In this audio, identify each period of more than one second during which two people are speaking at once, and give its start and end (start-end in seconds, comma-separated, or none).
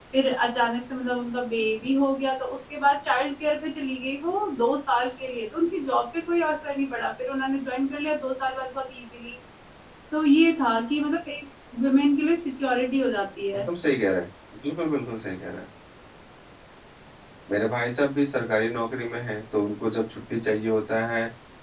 none